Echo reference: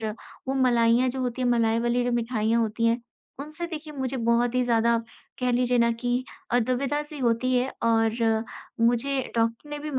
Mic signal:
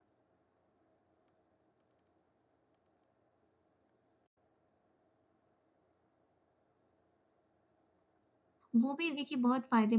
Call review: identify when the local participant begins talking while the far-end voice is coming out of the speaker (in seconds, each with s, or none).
8.8 s